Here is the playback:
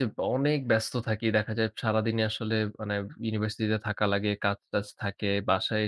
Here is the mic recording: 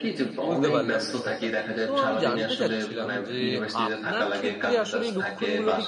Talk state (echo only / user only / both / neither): both